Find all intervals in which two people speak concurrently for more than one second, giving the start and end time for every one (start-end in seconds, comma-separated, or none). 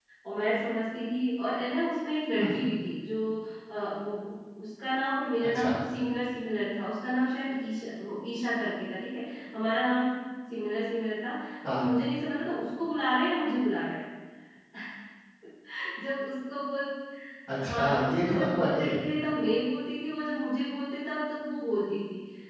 17.6-19.0